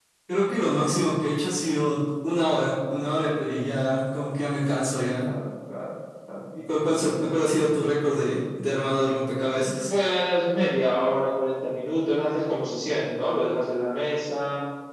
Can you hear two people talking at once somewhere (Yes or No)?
No